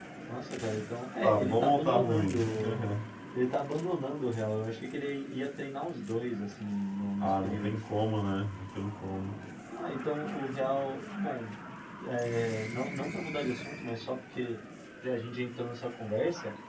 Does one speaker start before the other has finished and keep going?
Yes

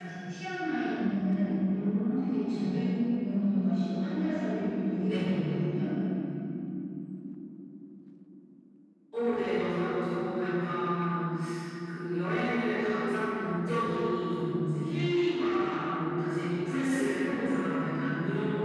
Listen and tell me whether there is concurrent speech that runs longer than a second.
No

